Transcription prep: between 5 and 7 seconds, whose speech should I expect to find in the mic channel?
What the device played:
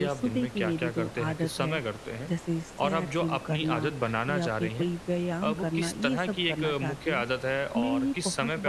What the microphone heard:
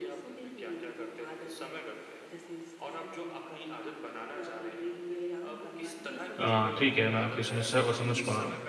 both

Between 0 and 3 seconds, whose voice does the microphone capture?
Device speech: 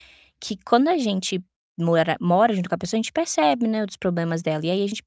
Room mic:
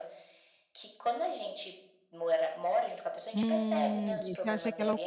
echo only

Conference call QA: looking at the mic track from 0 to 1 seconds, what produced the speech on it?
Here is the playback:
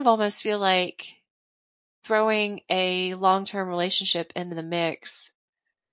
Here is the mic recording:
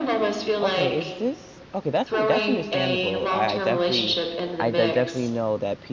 both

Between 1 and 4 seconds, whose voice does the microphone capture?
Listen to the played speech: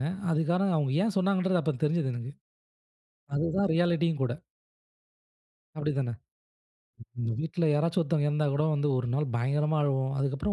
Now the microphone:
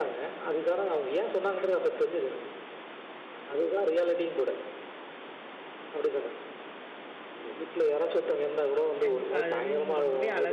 echo only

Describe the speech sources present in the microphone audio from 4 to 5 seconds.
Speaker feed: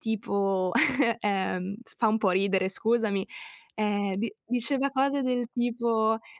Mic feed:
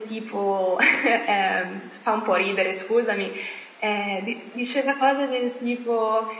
echo only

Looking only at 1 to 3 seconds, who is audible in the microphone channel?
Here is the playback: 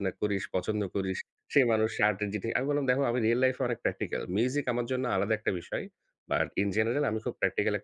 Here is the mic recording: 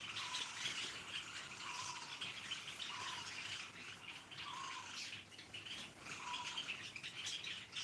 neither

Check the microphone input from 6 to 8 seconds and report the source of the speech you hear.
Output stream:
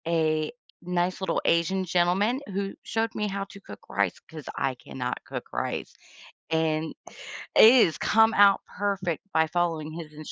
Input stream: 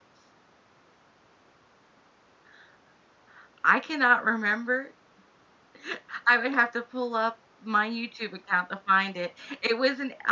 user only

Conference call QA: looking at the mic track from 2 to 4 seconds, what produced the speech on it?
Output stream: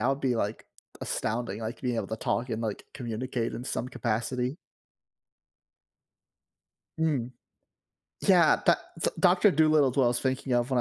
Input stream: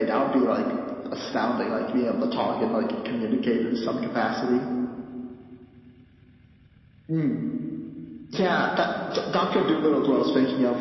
echo only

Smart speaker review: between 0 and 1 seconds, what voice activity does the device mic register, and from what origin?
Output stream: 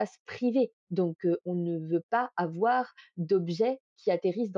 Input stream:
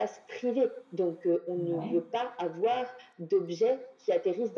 echo only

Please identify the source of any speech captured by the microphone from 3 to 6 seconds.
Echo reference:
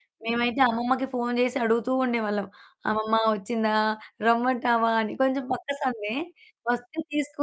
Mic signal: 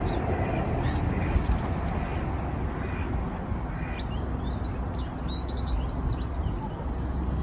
neither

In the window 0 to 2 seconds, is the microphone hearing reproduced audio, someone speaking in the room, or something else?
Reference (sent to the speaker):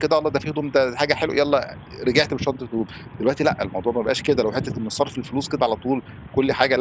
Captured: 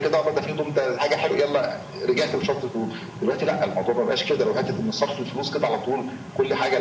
echo only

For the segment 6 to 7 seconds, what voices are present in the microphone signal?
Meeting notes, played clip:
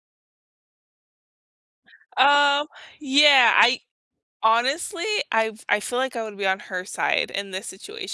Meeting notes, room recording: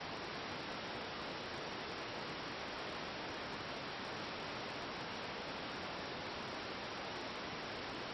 neither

